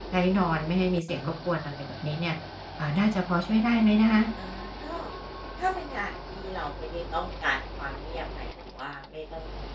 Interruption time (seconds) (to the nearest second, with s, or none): none